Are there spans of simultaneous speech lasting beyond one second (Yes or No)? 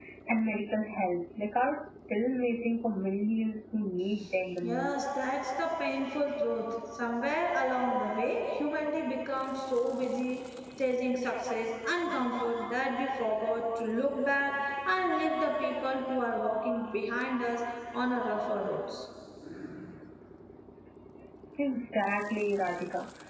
No